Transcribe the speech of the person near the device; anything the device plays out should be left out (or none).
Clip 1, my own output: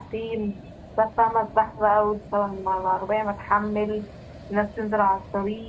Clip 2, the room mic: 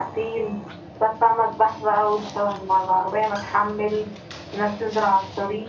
none